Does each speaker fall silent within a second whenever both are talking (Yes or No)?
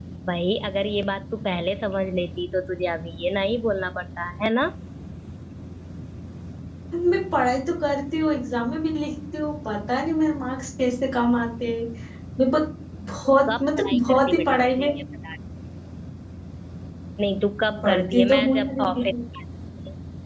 No